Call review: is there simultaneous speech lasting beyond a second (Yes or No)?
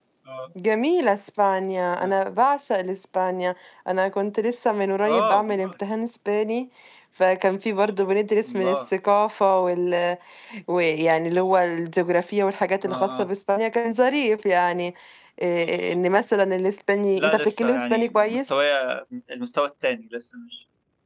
Yes